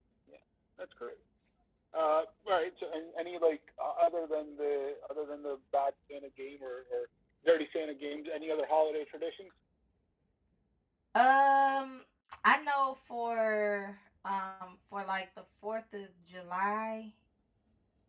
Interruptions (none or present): none